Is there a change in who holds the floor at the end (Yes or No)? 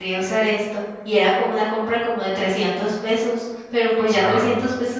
No